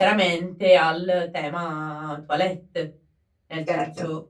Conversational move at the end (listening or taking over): listening